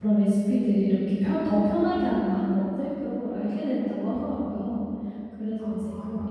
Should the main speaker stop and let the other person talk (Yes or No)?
No